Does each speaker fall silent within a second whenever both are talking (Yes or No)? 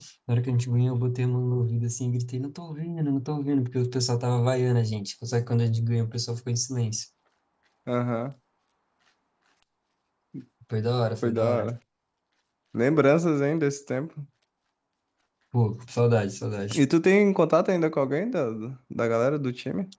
Yes